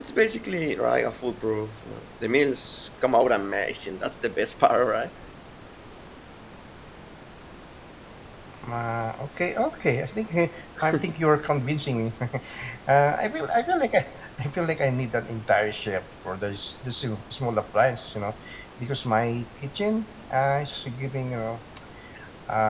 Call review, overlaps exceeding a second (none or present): none